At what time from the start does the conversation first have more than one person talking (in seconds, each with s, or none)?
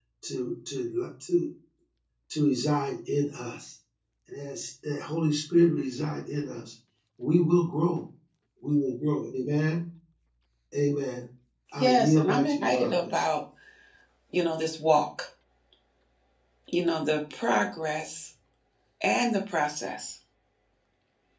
11.8 s